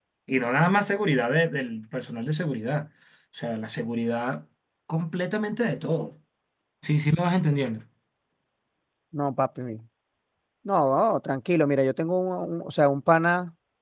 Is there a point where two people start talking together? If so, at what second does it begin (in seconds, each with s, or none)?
none